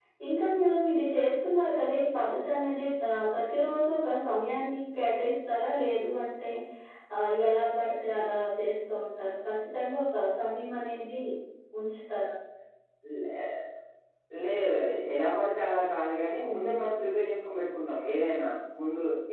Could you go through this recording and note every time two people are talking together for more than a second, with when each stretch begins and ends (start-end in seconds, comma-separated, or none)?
none